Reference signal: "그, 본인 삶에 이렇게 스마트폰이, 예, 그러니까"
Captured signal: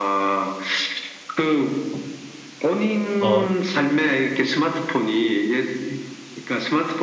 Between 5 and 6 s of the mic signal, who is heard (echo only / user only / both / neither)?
echo only